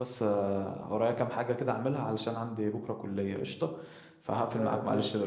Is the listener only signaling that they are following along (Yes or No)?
No